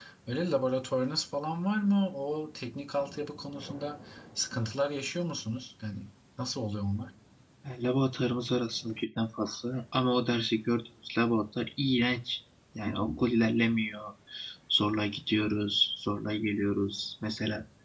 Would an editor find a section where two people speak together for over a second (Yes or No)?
No